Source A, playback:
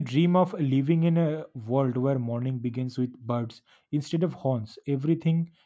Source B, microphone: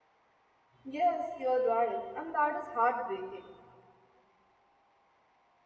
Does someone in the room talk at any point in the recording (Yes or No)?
Yes